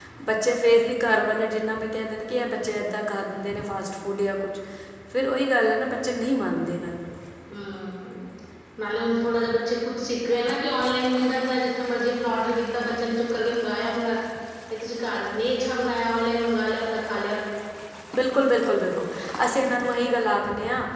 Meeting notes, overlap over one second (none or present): none